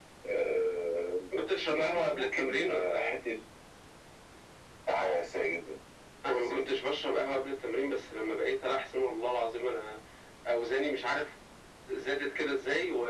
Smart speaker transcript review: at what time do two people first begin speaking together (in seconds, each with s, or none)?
1.6 s